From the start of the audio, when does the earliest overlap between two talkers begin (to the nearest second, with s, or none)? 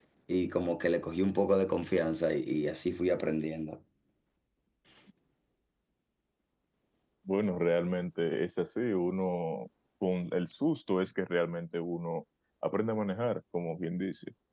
none